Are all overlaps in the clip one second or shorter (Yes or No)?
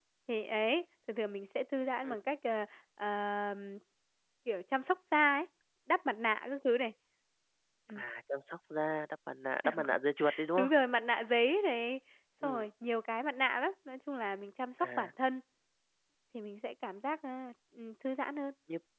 Yes